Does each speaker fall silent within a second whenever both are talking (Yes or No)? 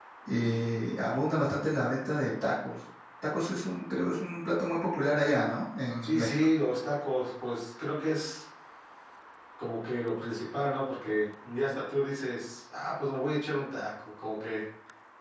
Yes